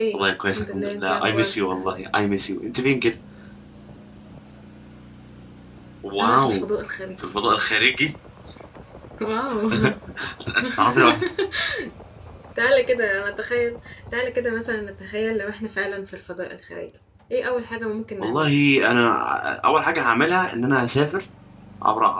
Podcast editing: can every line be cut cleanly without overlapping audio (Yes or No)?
No